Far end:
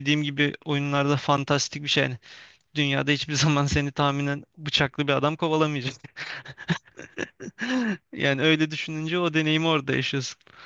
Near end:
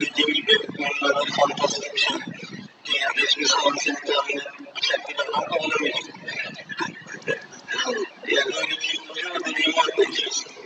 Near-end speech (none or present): none